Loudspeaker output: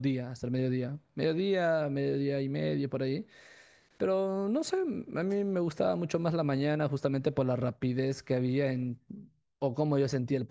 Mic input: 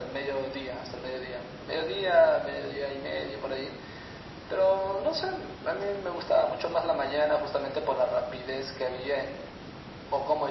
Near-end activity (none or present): none